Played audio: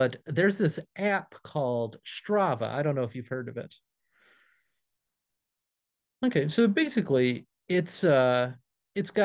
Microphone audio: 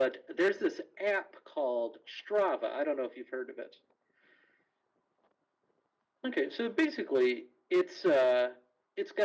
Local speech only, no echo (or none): none